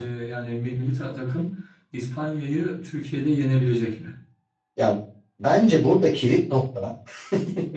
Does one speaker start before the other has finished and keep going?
No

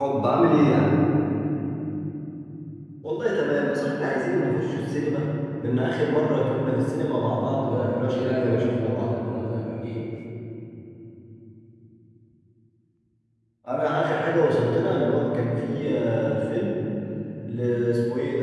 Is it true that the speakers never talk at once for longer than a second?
No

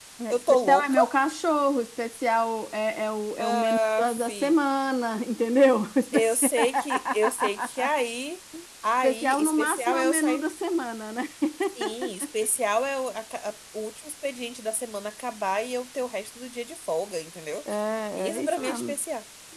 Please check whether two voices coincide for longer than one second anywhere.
Yes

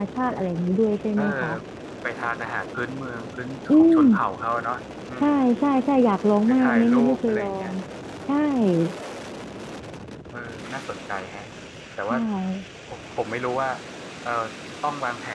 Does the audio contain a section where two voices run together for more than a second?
Yes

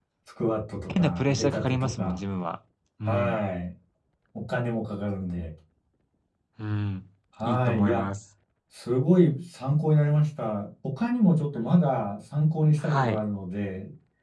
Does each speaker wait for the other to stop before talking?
No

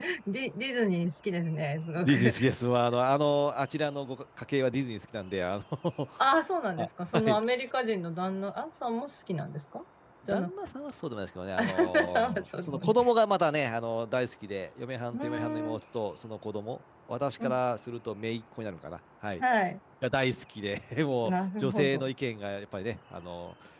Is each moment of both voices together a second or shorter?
No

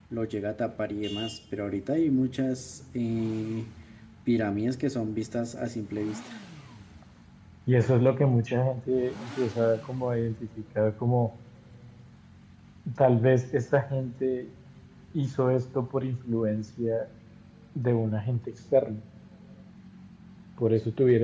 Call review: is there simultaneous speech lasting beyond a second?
No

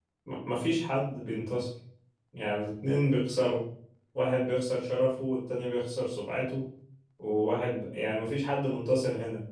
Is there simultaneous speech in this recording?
No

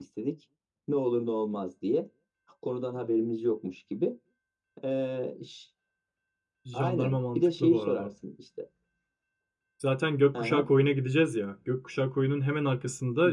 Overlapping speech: Yes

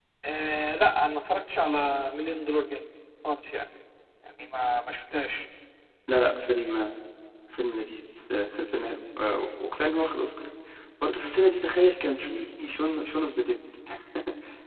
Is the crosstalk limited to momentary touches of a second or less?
Yes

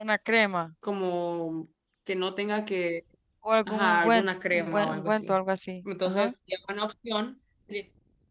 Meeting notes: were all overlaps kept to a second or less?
No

